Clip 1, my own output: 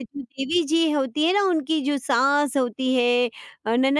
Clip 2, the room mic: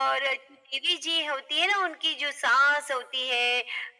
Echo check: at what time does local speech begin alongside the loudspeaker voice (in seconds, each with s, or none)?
none